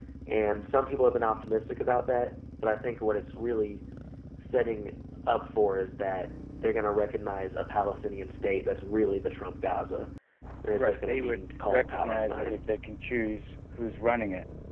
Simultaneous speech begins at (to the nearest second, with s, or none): 11 s